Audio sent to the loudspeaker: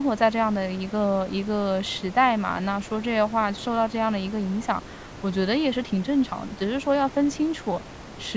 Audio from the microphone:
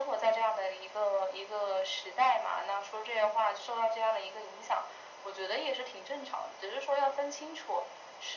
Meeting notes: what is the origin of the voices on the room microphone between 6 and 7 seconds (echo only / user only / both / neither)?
echo only